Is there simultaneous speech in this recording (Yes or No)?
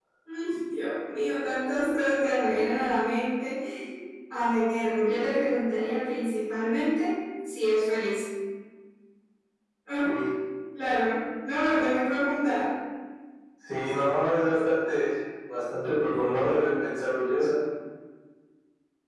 No